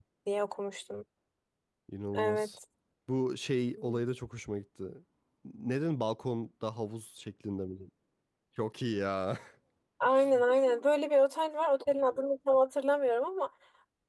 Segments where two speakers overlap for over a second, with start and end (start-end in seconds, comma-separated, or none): none